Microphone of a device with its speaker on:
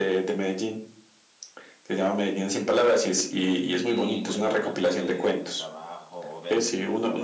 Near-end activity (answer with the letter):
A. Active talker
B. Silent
A